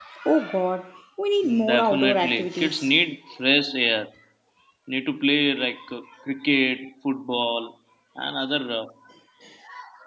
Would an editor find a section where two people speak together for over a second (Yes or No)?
Yes